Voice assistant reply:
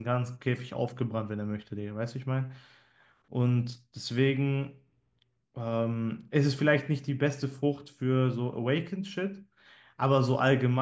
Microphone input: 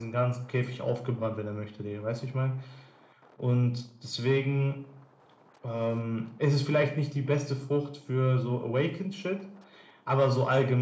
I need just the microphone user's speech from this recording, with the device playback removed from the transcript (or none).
none